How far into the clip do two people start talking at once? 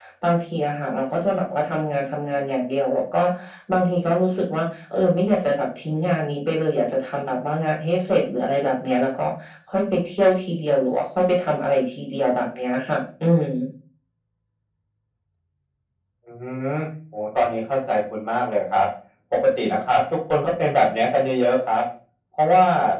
none

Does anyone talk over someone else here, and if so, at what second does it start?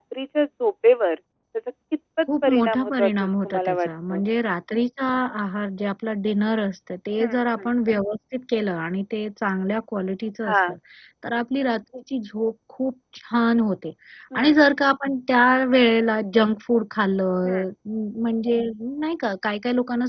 2.4 s

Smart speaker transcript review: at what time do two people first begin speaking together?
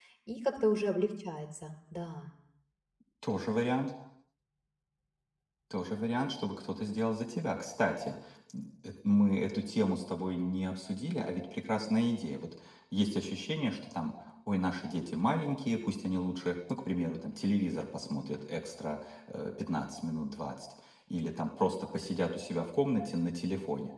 none

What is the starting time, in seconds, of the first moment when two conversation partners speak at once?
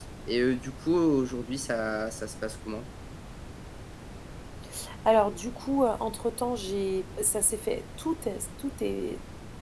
none

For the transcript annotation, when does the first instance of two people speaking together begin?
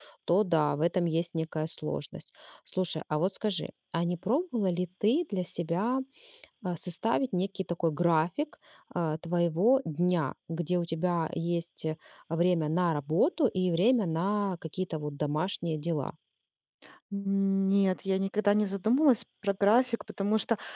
none

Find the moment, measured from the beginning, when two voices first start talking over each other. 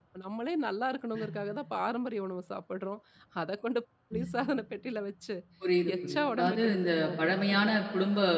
6.1 s

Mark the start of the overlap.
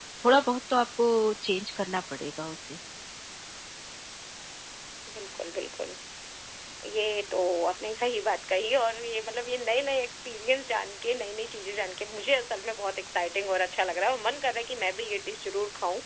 none

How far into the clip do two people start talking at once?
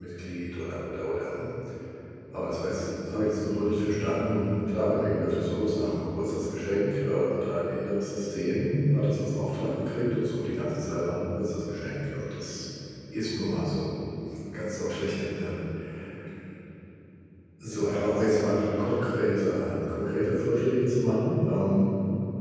17.7 s

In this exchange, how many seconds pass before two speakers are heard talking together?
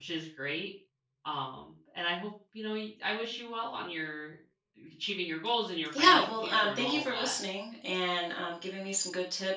5.9 s

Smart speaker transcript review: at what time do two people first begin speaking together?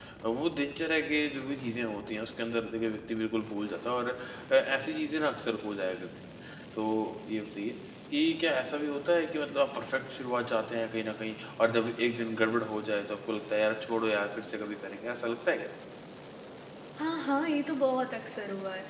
none

